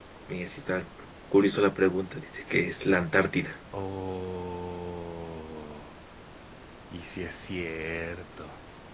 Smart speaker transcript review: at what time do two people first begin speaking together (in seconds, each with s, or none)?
none